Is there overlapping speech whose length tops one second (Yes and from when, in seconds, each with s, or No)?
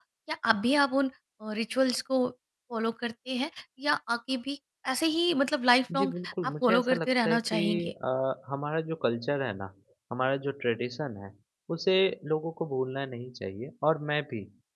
Yes, from 5.9 s